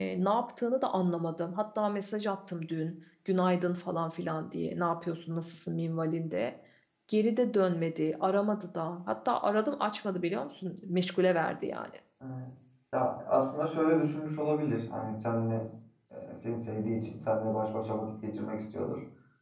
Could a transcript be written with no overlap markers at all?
Yes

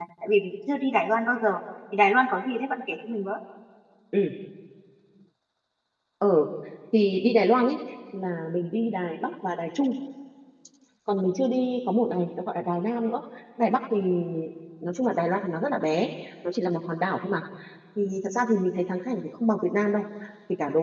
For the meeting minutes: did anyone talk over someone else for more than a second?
No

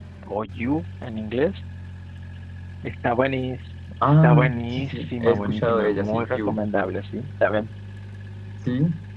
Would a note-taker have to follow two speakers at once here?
Yes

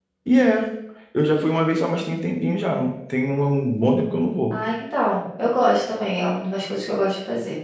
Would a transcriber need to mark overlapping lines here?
No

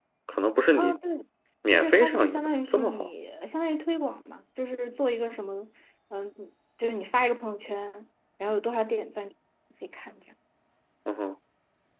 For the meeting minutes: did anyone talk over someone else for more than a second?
Yes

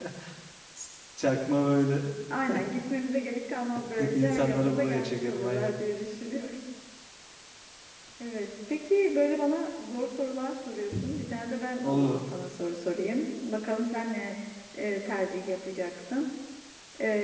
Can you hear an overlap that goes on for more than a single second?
Yes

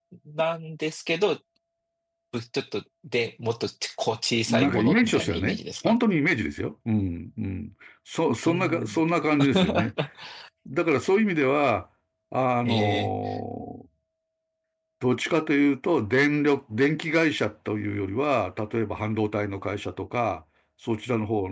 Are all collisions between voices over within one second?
No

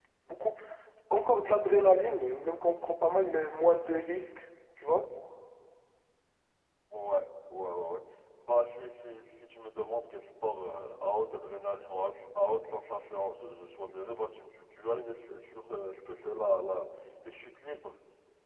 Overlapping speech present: No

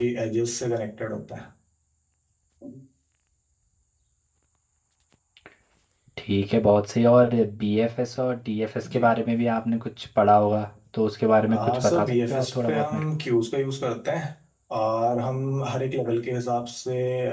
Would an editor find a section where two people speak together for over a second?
Yes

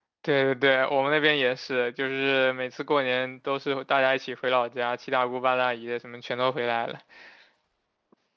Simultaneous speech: No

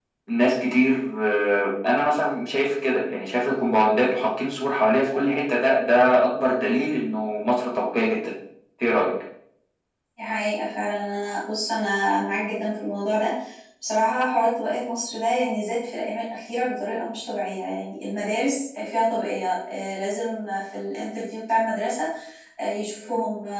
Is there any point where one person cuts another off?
No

